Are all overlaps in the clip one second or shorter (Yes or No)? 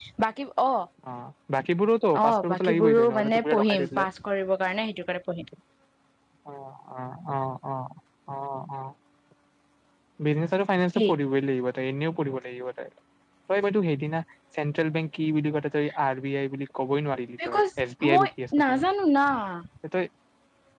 No